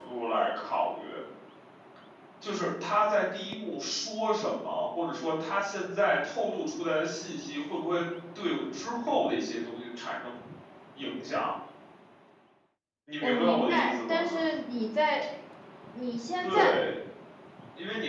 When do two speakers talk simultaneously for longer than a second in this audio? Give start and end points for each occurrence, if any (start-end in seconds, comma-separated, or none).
13.2-14.4